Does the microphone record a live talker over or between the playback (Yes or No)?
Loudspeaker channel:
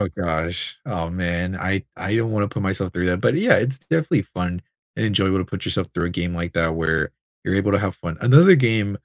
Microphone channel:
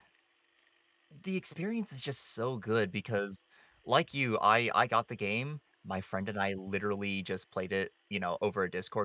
Yes